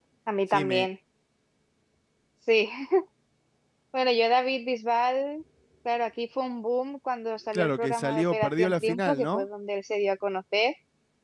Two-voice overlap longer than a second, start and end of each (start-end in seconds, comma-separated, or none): 7.5-9.5